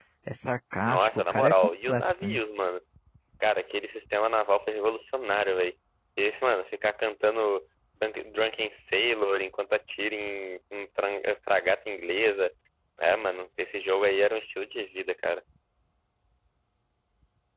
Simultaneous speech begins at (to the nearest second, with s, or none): 1 s